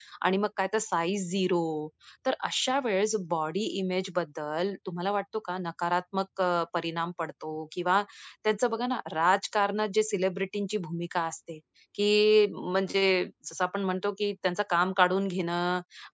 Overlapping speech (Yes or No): No